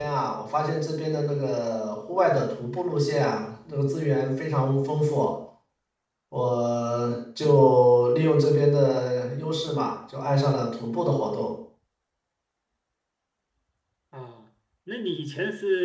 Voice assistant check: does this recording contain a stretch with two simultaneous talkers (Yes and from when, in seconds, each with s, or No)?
No